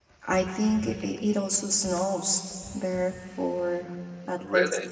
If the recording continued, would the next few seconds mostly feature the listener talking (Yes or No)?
No